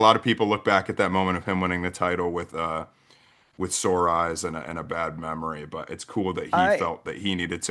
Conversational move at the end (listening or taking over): listening